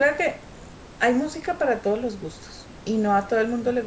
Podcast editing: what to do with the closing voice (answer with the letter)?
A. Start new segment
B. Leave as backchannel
B